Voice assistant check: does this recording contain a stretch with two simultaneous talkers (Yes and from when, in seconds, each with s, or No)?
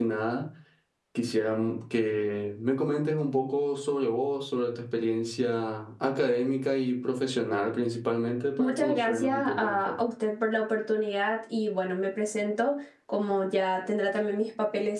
Yes, from 8.6 s